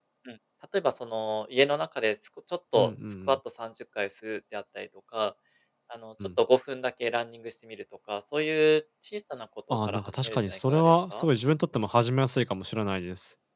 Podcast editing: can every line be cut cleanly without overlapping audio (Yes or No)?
No